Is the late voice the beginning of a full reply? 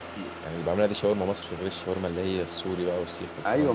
Yes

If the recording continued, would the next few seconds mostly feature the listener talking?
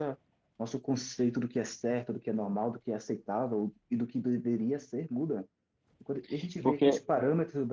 No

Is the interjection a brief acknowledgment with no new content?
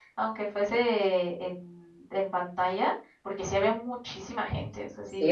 No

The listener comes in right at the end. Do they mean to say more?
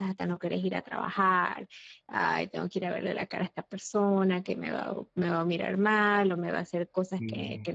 No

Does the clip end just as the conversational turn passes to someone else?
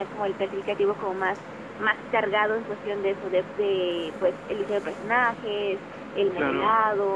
No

